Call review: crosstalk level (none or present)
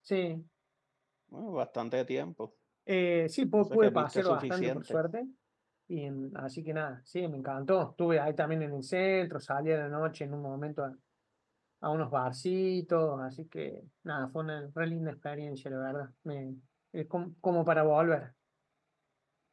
present